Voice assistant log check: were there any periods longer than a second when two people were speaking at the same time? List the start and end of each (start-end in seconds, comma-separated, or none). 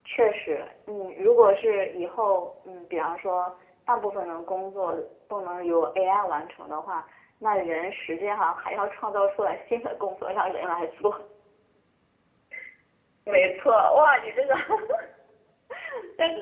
none